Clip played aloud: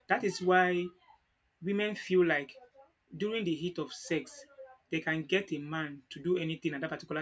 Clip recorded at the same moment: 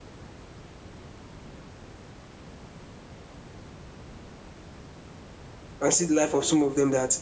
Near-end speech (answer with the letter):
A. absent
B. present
B